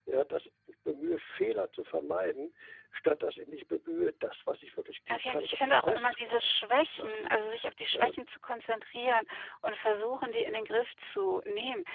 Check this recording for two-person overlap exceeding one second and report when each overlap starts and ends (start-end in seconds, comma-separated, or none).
5.1-6.5